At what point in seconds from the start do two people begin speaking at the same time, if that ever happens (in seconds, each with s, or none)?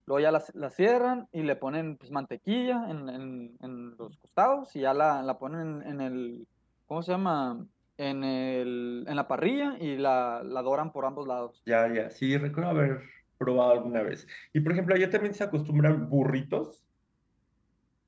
none